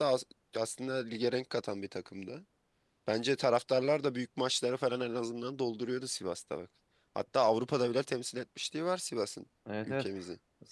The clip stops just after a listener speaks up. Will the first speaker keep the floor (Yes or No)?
No